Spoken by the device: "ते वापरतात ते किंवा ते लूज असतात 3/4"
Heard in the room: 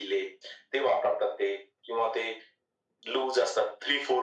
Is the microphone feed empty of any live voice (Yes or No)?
Yes